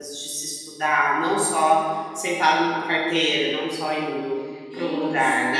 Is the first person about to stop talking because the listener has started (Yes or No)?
Yes